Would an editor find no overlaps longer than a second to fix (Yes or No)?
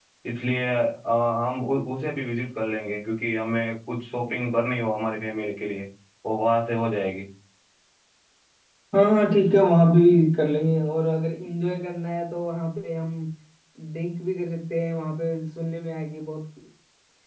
Yes